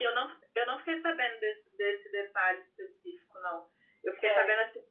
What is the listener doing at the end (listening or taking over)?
listening